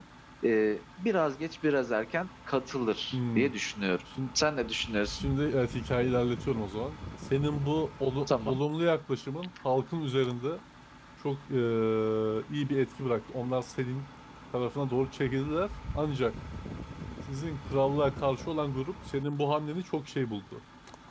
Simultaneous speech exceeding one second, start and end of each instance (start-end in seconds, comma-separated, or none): none